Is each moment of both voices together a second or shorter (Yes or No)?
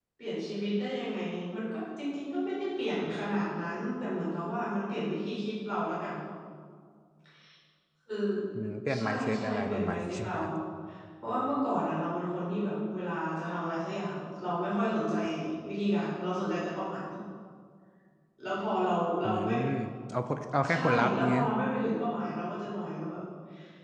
No